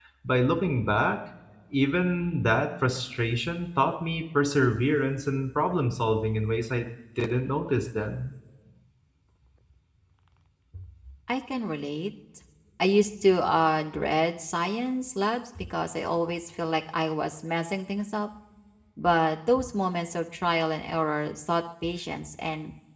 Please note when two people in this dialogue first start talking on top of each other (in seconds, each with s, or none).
none